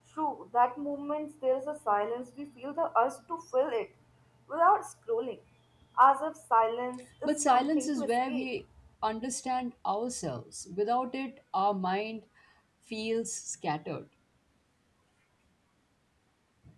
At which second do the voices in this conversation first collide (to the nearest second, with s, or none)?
7 s